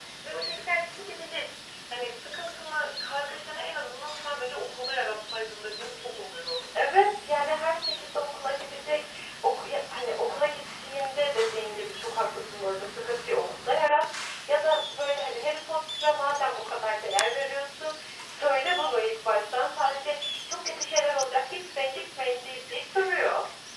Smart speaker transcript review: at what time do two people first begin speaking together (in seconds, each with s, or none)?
none